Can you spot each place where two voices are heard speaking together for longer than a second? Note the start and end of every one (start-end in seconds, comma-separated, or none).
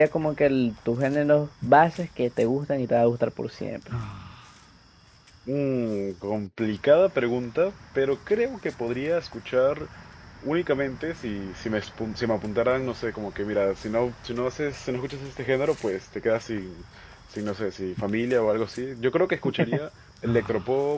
none